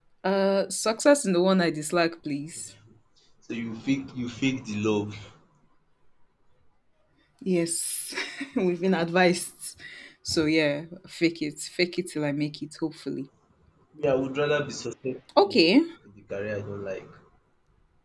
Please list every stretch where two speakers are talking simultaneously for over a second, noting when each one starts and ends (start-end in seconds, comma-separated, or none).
none